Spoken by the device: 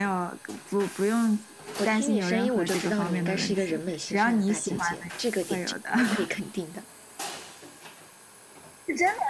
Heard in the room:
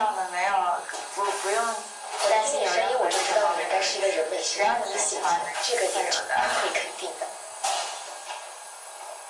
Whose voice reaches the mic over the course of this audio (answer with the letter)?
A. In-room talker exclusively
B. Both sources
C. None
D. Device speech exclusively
D